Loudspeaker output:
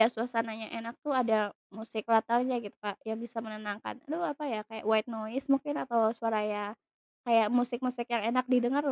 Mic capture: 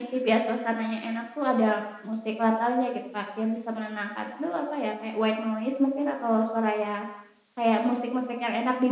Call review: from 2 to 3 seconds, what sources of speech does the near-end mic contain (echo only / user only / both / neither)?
echo only